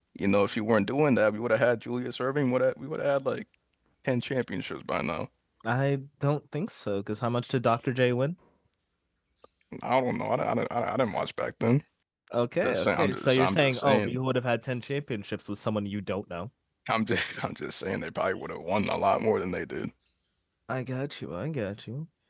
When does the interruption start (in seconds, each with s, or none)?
12.6 s